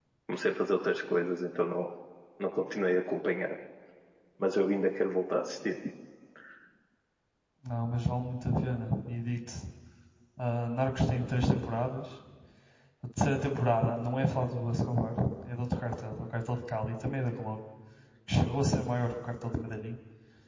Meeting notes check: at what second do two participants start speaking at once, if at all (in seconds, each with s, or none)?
none